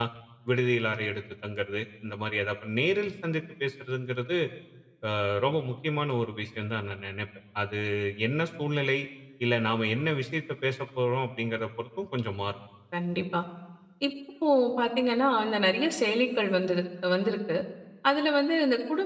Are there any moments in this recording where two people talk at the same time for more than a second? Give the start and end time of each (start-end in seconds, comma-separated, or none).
none